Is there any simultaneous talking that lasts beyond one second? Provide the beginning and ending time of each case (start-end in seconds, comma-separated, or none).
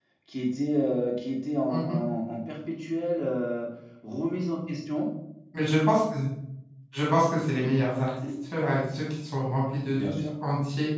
none